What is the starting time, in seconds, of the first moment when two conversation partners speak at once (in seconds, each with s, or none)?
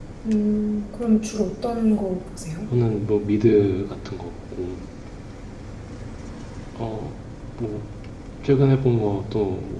none